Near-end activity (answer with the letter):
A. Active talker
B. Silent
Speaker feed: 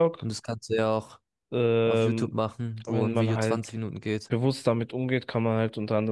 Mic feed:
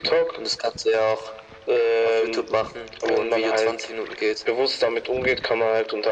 B